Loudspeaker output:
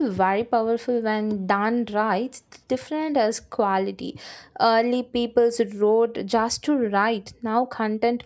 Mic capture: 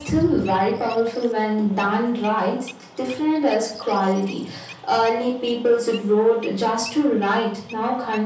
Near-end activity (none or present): none